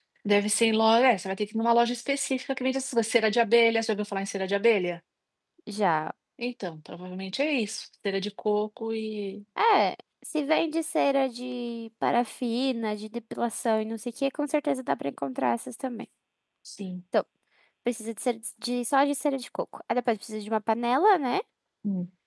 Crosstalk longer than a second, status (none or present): none